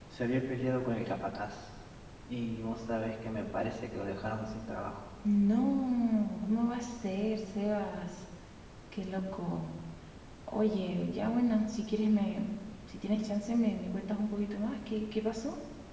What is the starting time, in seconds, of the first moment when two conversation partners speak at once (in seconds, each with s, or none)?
none